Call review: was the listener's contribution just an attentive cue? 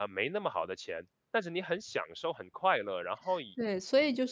No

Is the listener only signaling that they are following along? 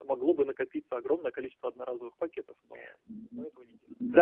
No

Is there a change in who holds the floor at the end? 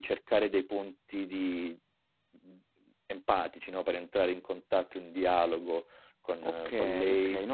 Yes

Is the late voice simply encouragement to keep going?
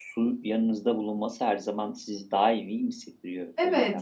No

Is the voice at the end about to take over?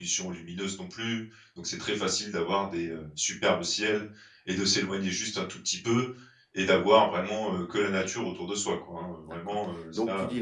Yes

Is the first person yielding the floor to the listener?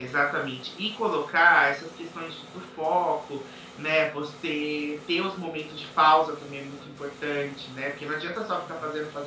No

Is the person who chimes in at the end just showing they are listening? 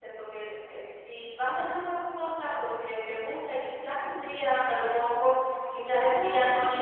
Yes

